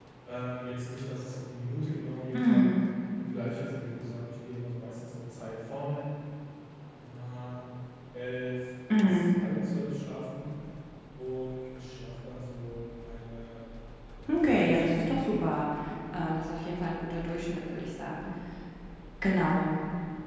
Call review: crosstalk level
present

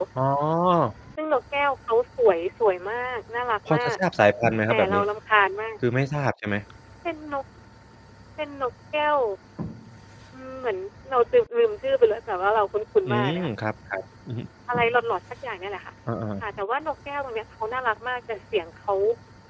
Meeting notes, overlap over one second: none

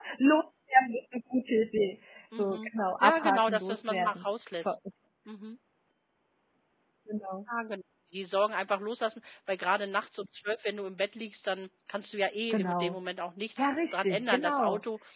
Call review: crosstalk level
present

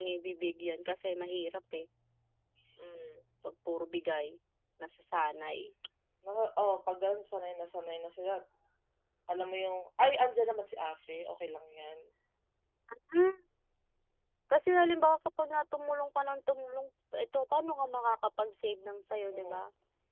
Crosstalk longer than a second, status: none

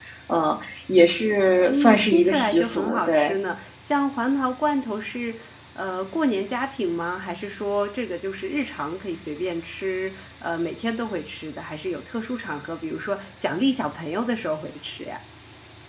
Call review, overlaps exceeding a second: present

